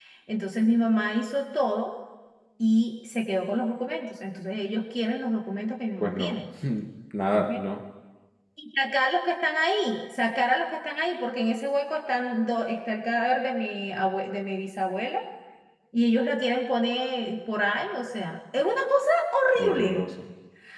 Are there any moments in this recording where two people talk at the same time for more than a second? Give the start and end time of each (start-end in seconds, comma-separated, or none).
none